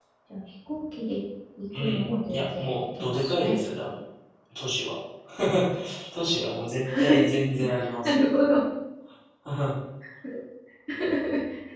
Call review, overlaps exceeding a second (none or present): present